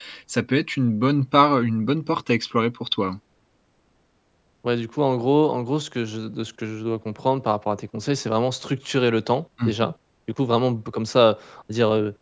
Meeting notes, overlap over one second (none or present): none